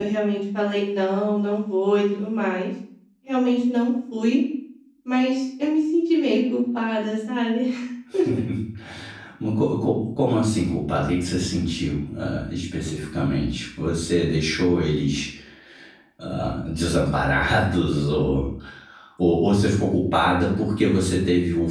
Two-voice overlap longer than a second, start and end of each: none

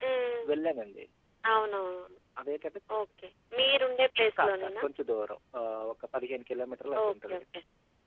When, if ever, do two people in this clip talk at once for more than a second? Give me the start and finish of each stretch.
none

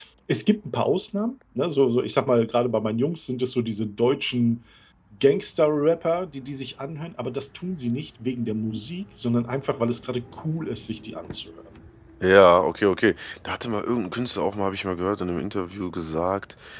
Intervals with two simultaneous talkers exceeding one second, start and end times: none

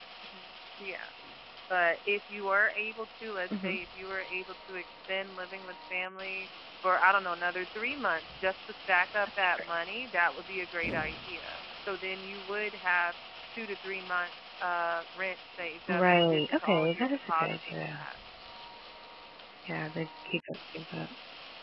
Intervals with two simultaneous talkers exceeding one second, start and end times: 15.9-18.0

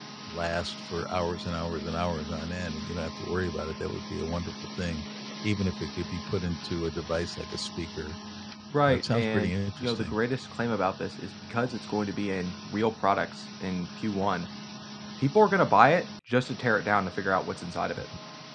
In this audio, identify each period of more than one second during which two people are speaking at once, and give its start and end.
8.9-10.2

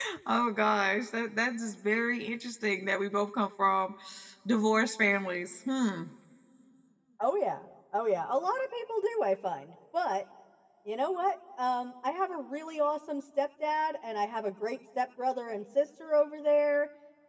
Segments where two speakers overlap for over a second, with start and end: none

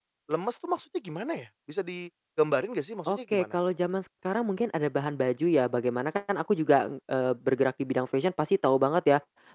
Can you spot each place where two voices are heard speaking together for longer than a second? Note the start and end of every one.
none

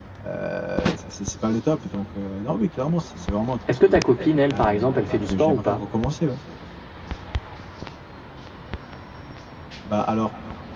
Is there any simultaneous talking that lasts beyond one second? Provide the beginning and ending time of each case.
4.5-5.8

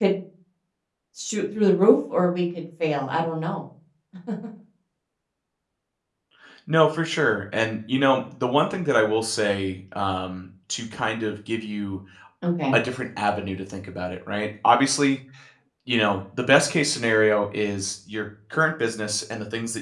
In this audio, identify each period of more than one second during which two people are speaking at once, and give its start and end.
none

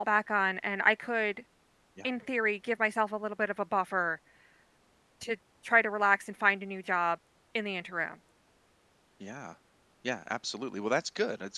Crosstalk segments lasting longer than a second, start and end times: none

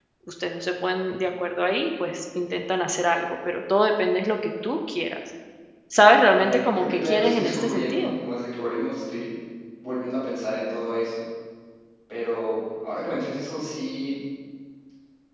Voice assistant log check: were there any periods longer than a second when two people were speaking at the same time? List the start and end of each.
6.3-8.2

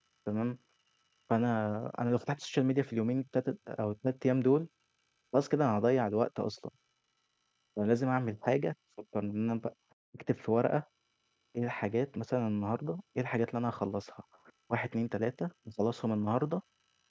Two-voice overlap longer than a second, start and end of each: none

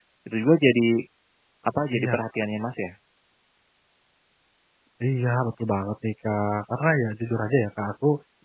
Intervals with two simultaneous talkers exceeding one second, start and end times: none

